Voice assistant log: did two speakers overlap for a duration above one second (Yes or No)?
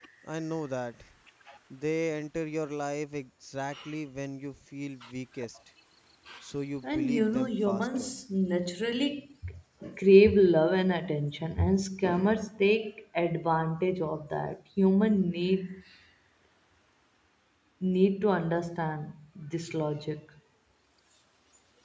Yes